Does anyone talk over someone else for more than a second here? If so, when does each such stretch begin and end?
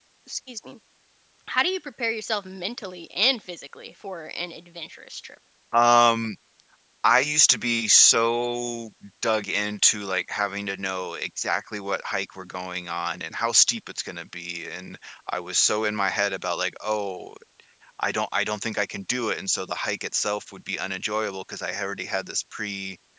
none

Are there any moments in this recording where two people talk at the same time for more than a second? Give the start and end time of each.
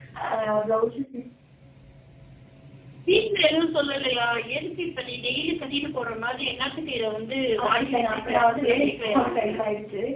7.6-9.5

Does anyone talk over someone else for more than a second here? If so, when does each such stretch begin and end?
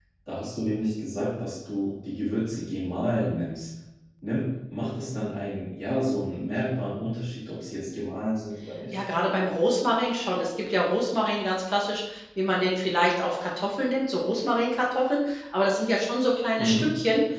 none

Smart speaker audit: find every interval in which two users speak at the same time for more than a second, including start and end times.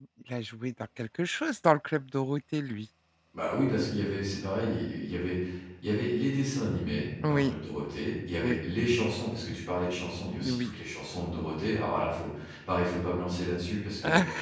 none

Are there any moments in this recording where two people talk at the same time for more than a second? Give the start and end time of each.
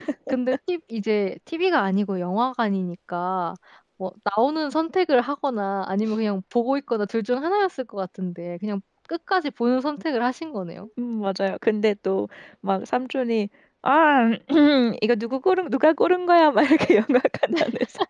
none

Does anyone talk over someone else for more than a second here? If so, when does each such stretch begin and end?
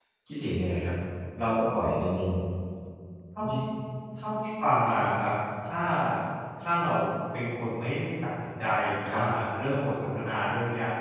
none

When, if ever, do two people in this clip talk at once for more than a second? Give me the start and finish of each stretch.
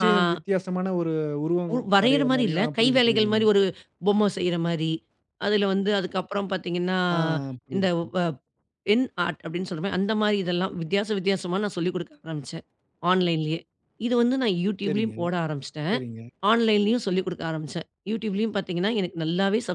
1.7-3.4

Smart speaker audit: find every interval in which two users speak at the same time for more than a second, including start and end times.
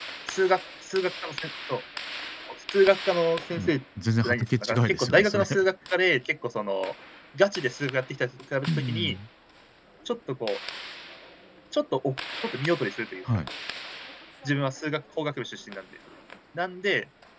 4.2-5.4

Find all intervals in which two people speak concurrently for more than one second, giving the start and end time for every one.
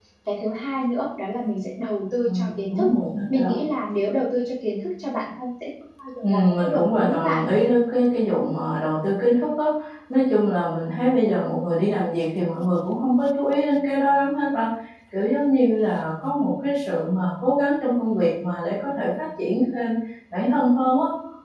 6.2-7.4

